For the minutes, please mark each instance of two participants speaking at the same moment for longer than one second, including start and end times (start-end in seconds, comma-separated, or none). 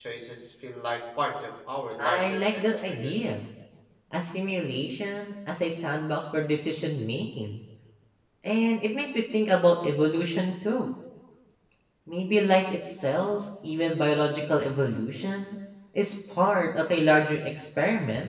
2.0-3.3